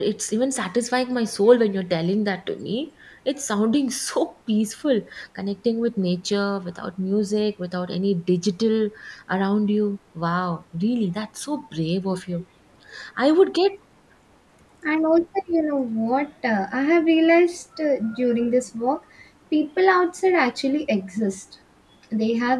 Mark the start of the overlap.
none

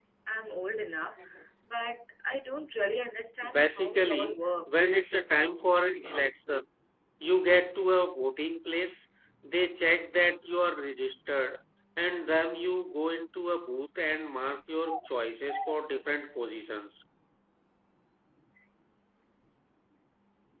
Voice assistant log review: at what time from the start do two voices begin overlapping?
3.5 s

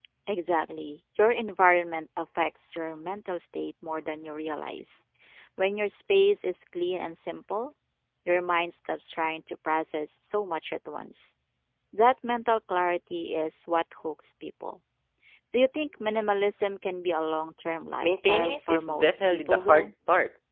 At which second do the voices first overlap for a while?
18.0 s

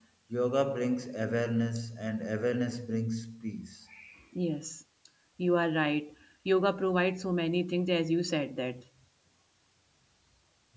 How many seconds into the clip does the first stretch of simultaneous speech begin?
none

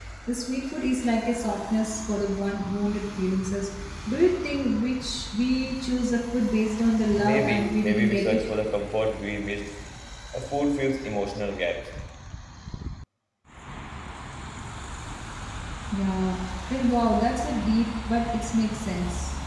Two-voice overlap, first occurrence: 7.2 s

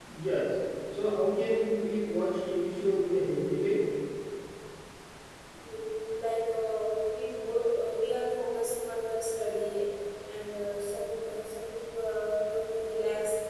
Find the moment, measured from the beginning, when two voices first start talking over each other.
none

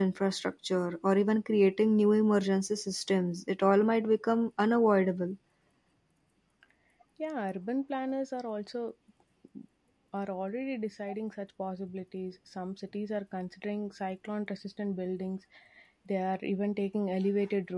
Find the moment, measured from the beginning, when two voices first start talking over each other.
none

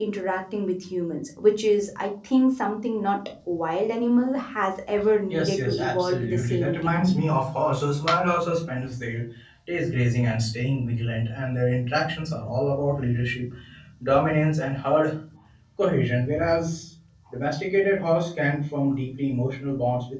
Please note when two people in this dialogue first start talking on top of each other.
5.3 s

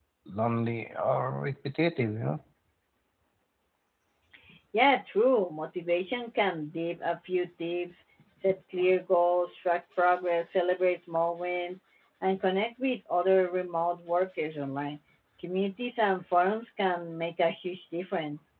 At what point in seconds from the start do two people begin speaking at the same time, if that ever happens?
none

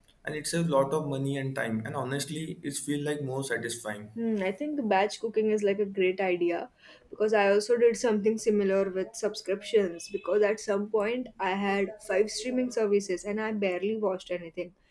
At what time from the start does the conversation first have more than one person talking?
none

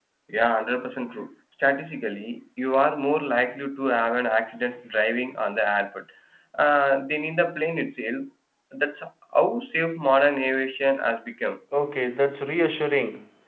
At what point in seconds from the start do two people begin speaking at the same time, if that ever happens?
none

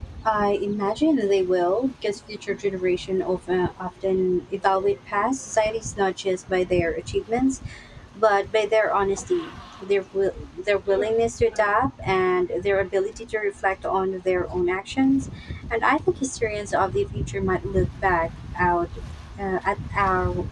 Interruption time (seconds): none

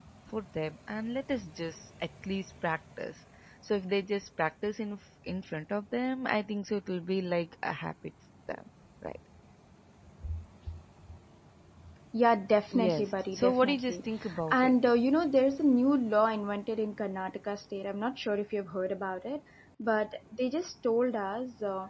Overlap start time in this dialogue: 12.7 s

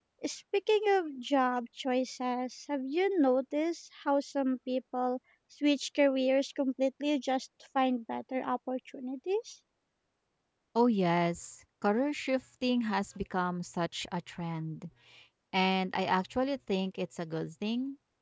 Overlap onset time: none

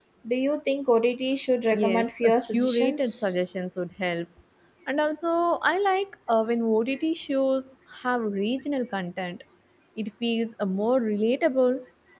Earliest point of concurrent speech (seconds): 1.7 s

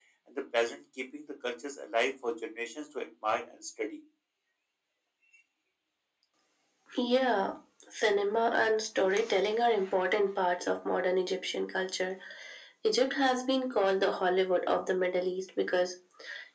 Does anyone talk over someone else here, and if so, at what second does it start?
none

